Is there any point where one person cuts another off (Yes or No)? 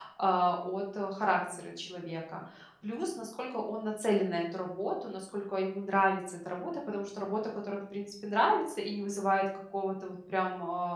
No